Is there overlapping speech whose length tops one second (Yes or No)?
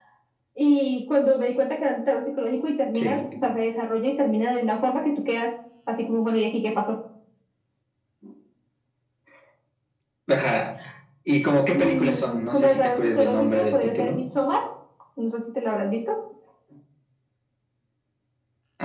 Yes